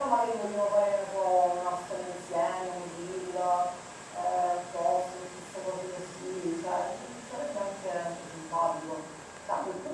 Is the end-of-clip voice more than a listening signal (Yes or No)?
No